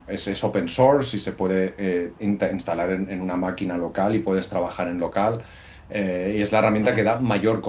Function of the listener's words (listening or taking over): listening